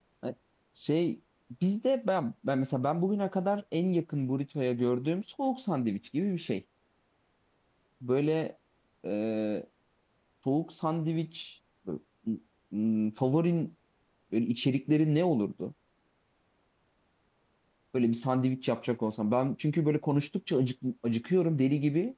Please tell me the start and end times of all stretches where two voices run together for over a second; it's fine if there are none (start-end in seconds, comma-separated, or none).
none